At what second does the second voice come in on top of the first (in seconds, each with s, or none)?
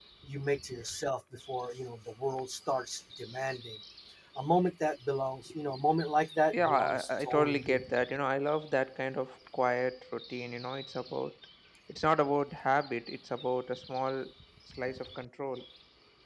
6.5 s